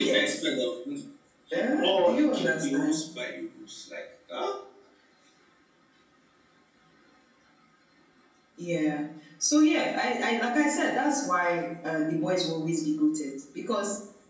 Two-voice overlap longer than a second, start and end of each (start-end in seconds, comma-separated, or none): 1.8-3.0